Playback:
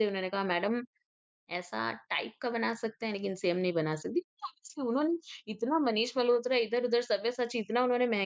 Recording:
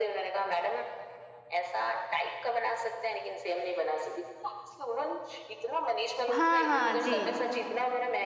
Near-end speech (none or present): present